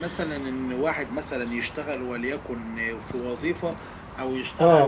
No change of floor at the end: Yes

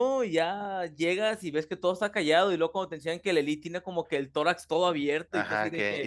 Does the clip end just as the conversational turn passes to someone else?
Yes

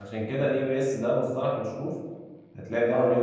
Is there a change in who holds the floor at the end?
No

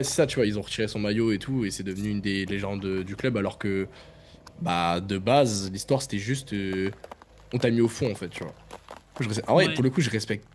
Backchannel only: Yes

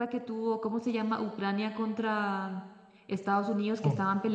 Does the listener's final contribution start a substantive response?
No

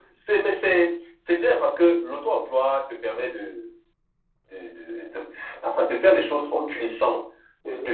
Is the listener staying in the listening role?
Yes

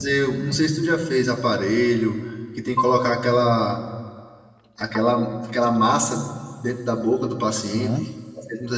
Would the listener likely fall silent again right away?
No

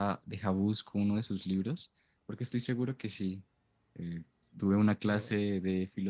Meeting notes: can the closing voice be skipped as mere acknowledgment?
Yes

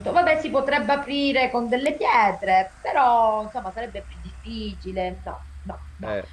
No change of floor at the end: Yes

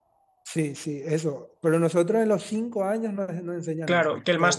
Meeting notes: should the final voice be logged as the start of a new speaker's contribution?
Yes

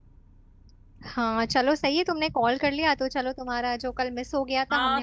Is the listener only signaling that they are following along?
No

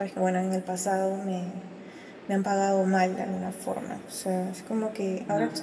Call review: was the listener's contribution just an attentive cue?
Yes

